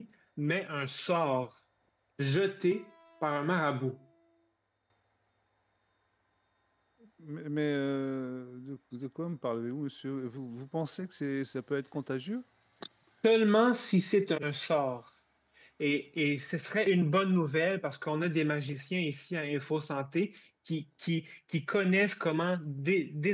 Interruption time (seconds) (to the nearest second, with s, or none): none